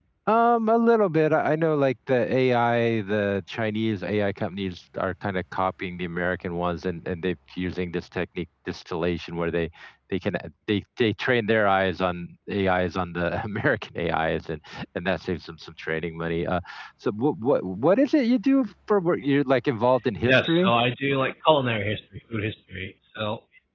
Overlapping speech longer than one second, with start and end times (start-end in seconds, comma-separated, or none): none